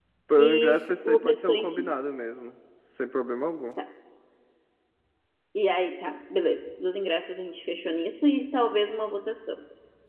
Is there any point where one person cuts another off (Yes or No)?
Yes